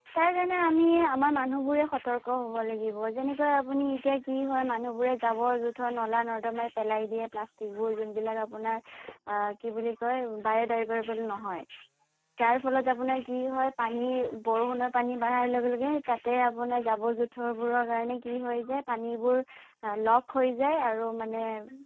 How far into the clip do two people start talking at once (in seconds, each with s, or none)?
none